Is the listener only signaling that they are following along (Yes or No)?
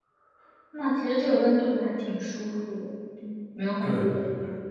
No